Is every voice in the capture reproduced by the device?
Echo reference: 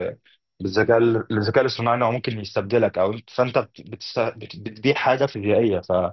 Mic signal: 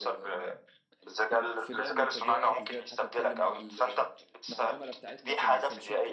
No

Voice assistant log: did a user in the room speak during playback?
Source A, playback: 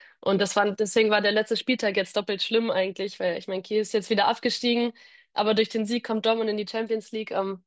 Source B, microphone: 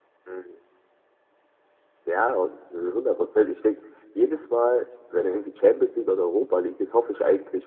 Yes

